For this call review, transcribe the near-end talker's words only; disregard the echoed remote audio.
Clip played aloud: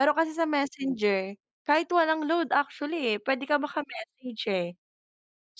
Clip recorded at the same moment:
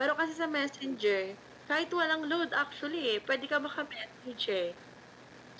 none

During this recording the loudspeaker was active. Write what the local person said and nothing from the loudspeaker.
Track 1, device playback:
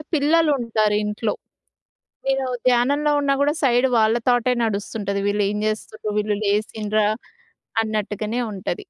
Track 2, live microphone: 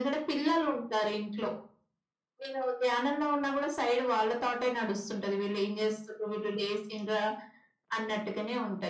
none

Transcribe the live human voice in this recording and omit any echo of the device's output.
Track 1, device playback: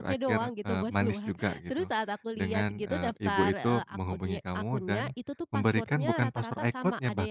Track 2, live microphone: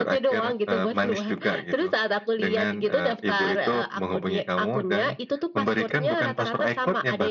none

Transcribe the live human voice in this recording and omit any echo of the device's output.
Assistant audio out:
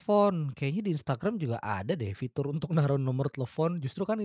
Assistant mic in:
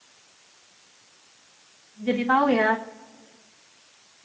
jadi tahu ya,

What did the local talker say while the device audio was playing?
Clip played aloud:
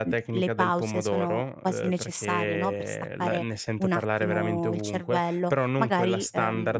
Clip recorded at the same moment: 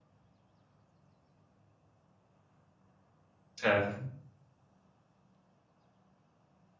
Certo.

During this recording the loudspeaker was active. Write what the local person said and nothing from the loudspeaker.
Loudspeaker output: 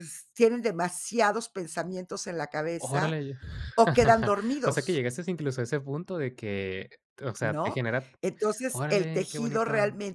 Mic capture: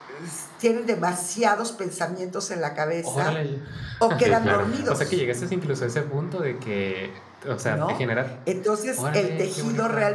Sí, claro.

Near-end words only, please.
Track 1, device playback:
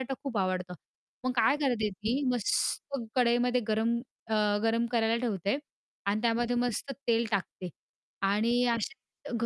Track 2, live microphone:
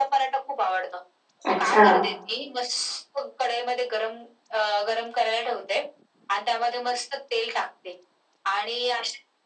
अच्छा.

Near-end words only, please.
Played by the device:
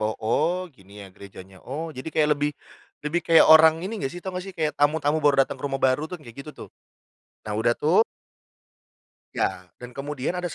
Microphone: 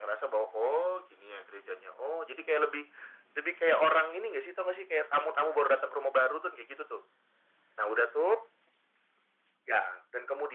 none

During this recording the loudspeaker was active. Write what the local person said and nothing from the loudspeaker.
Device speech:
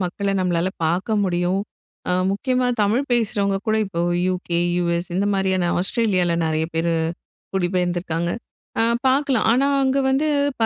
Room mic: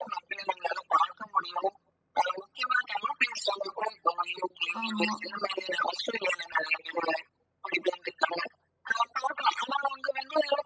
ஆமா.

